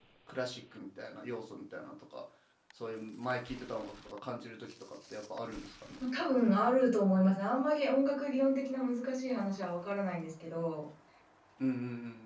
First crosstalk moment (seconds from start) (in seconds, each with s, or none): none